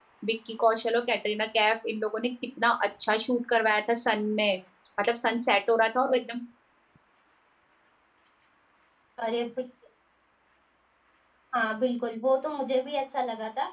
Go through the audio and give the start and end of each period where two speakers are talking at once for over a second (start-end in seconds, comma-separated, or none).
none